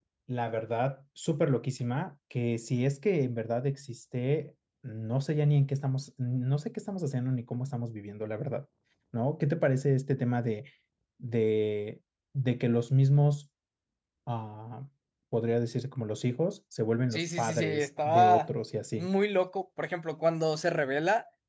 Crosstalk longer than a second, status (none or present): present